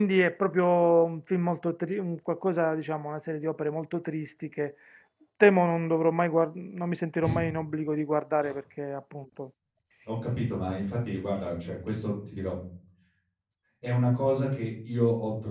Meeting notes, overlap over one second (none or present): none